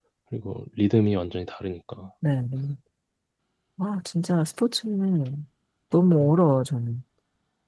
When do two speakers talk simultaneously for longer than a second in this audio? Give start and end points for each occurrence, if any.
none

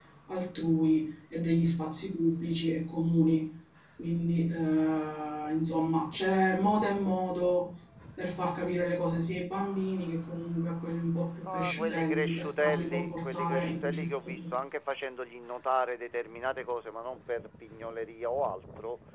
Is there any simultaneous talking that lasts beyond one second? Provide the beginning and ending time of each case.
11.4-14.6

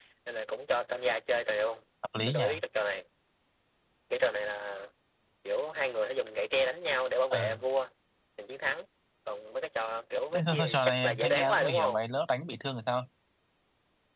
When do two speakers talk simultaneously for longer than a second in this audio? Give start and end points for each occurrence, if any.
10.3-12.0

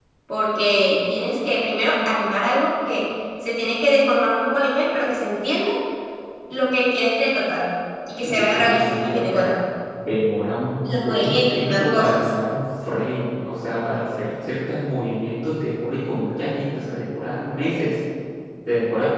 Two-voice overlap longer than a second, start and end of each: 8.2-9.5, 10.8-12.2

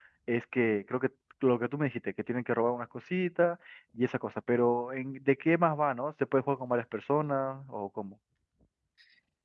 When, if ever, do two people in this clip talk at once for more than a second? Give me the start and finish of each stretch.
none

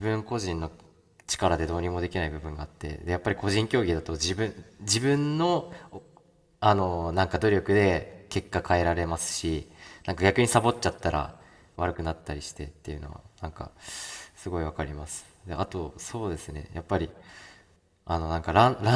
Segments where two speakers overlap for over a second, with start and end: none

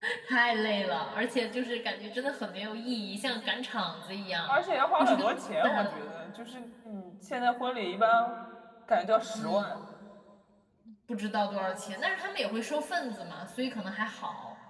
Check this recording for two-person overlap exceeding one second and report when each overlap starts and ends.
none

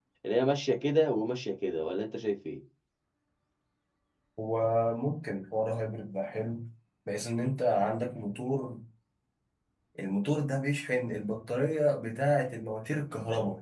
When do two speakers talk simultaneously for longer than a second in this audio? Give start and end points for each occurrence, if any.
none

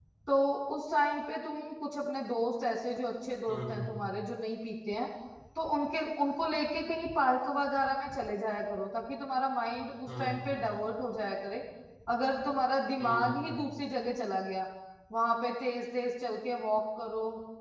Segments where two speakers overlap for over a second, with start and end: none

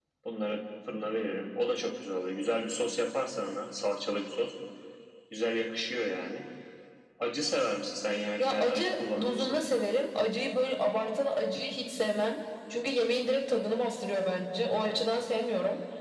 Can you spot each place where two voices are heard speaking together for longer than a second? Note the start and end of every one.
8.4-9.6

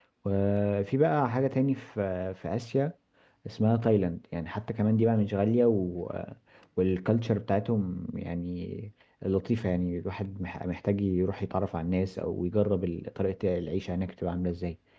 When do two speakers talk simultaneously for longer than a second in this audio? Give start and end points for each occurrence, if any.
none

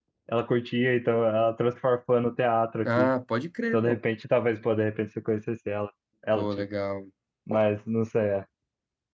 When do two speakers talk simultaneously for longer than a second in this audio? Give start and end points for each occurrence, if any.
none

